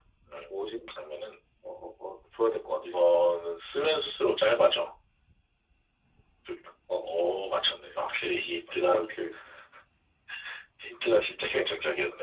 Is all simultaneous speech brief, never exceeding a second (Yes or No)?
Yes